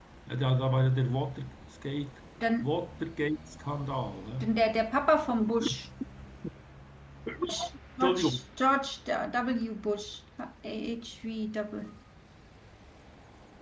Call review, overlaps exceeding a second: none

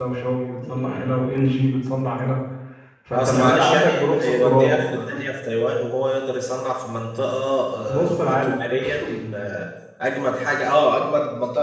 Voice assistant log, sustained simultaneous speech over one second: present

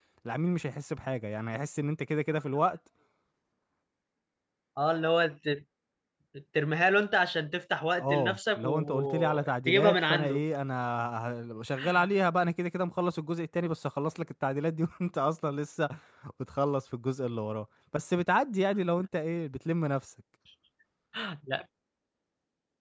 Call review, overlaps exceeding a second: present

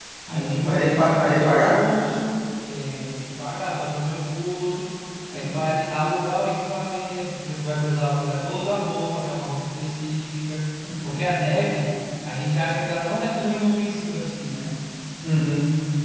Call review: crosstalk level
present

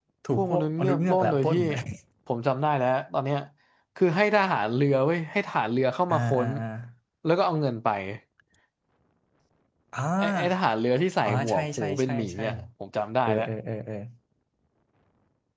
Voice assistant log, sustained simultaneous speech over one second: present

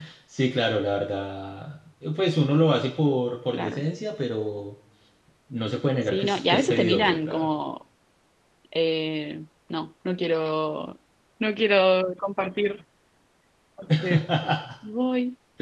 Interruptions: present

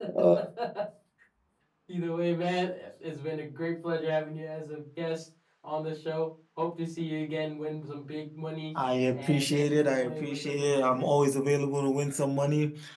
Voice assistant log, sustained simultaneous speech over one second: present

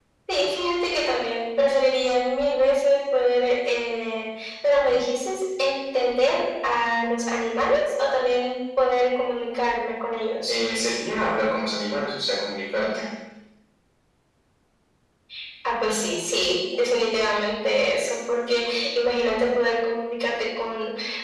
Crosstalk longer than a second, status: none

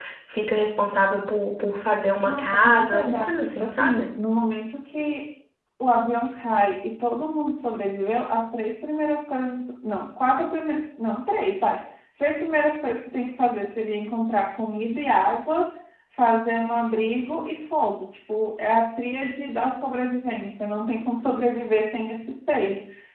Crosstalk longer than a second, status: present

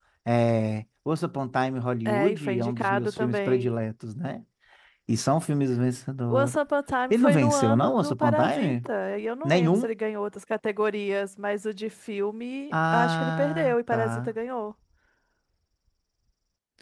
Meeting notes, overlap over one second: present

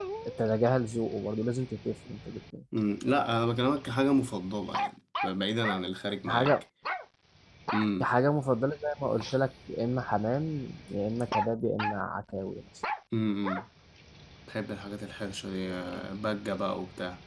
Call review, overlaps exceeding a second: none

